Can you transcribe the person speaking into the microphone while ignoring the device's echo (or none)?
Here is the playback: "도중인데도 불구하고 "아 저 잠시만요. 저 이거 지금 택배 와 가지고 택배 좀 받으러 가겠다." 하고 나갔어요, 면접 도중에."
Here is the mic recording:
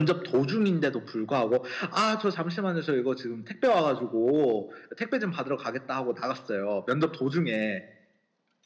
none